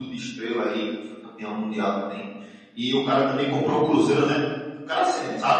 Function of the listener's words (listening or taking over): listening